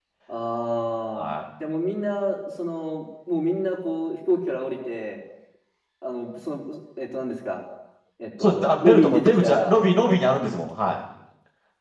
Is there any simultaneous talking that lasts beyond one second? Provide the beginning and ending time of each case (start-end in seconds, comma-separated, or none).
8.4-9.8